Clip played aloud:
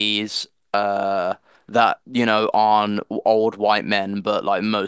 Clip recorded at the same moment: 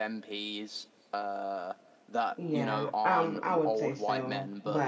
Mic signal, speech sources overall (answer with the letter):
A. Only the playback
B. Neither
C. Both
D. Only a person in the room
C